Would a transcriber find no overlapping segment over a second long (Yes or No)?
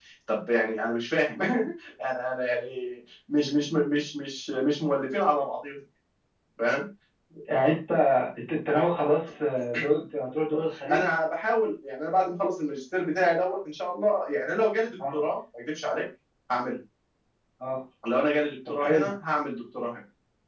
Yes